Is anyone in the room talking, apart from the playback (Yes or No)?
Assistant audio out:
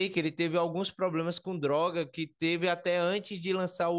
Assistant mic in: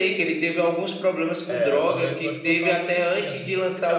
Yes